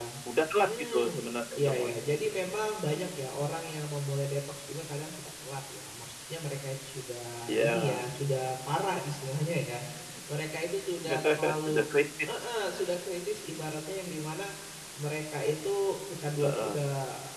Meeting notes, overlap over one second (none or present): present